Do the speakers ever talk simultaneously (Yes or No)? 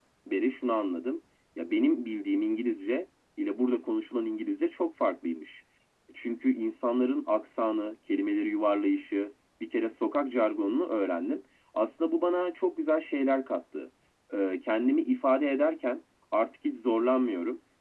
No